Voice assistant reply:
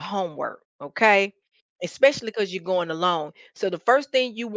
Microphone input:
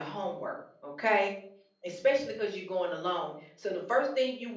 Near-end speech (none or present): none